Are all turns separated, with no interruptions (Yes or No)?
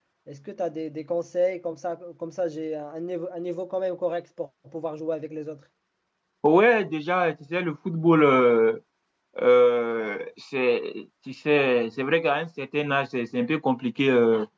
Yes